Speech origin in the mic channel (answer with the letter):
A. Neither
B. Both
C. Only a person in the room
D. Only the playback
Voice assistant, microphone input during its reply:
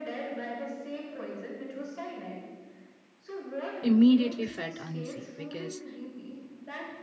B